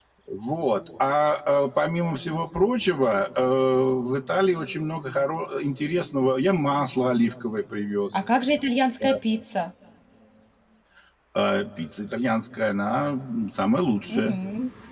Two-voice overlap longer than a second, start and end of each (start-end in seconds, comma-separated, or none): none